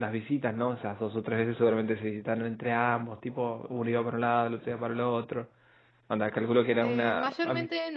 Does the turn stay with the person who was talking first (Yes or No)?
No